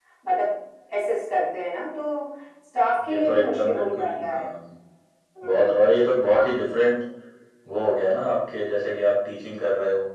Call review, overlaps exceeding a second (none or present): present